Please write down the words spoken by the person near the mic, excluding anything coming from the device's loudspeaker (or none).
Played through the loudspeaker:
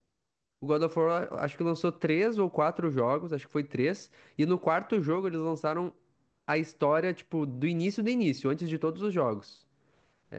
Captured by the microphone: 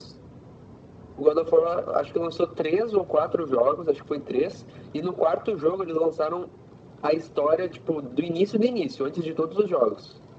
none